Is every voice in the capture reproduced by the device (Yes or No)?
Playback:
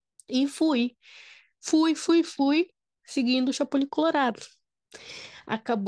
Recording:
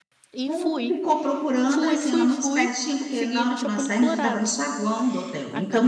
No